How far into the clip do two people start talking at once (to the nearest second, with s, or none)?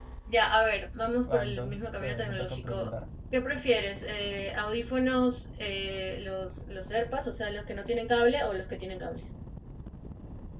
1 s